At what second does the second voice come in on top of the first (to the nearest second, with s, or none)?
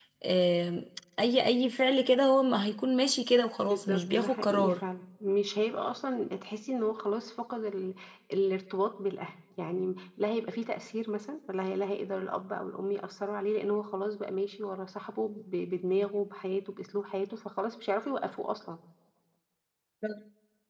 4 s